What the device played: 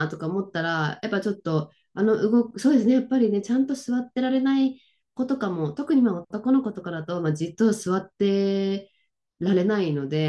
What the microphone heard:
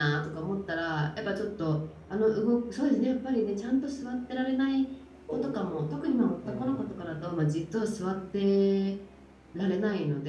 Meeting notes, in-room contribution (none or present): present